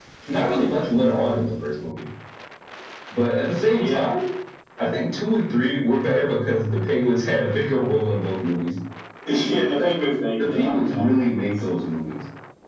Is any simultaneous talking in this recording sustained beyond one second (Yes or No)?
Yes